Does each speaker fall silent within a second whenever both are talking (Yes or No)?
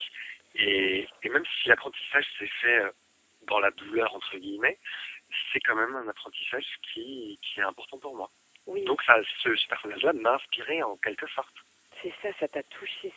Yes